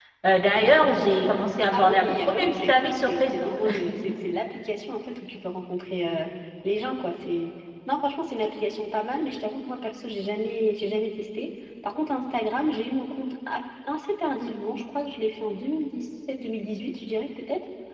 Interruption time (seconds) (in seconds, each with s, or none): 1.7 s